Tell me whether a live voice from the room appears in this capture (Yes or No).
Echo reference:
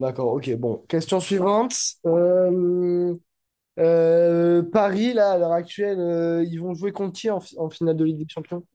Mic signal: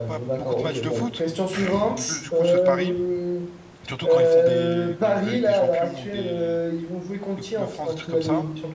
Yes